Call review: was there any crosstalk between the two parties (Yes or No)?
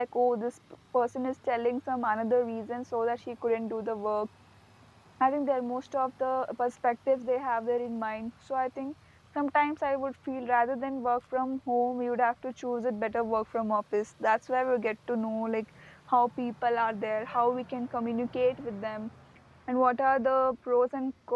No